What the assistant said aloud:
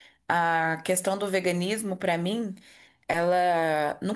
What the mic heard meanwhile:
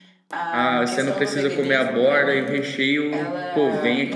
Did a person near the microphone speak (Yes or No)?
Yes